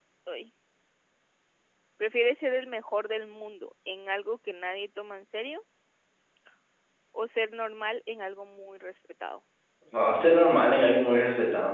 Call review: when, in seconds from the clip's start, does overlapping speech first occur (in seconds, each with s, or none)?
none